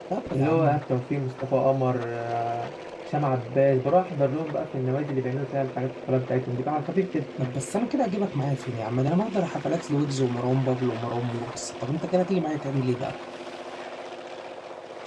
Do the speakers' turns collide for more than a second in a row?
No

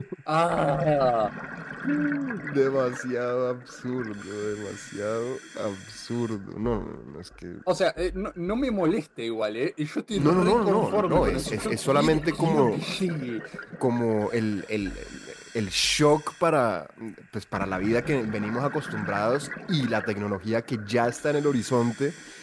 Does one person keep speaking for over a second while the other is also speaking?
Yes, from 10.2 s

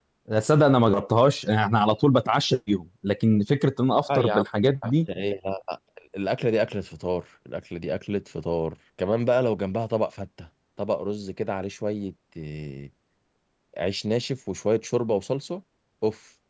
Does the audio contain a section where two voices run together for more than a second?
No

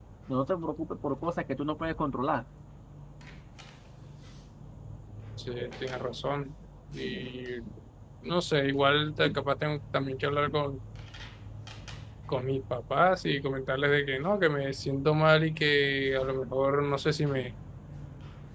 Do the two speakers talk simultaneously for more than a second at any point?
No

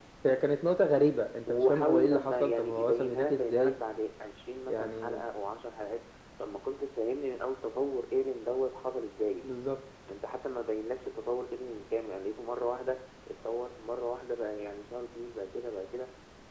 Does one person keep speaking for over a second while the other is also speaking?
Yes, from 1.5 s

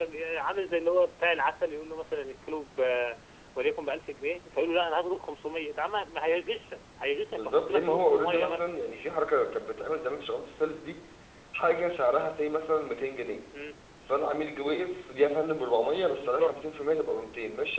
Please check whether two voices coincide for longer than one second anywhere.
Yes, from 7.3 s

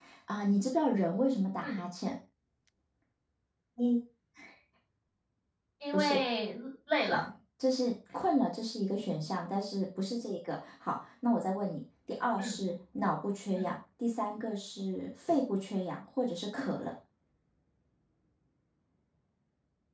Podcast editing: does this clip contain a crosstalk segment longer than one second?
No

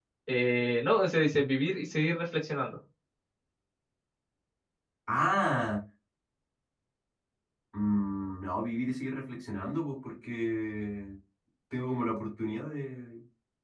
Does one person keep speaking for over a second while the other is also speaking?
No

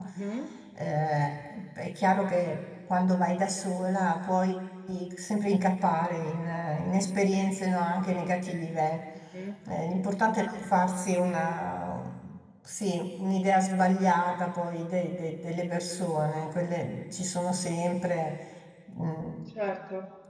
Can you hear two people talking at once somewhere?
No

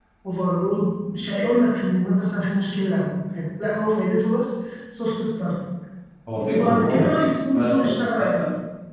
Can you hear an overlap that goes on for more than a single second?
Yes, from 6.5 s

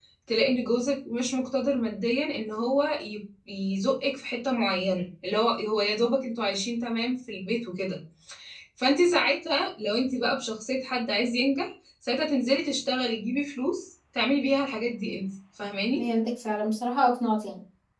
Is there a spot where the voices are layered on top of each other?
No

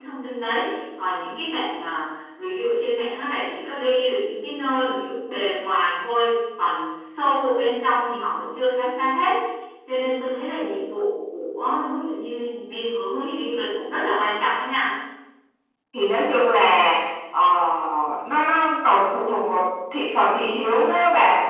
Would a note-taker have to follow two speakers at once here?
No

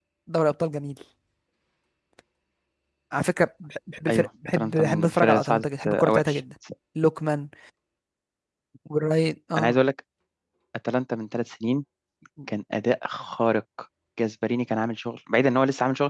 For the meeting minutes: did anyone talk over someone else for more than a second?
Yes, from 4.1 s

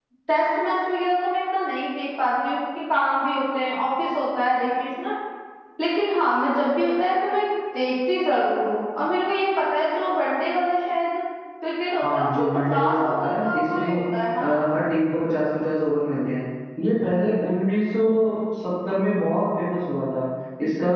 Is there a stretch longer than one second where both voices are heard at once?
Yes, from 12.0 s

